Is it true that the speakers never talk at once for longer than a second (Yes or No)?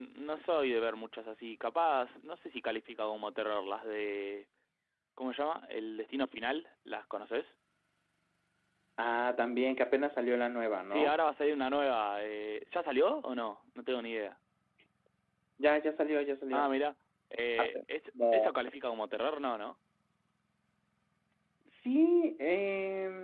Yes